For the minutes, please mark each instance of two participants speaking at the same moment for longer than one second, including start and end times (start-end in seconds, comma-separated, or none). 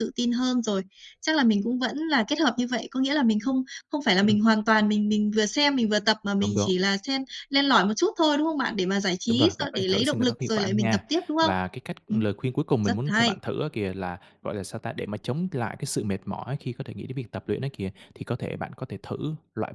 9.3-11.0